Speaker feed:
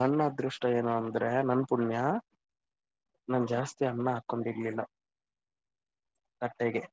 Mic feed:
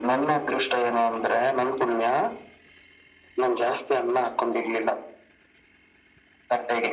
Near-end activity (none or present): none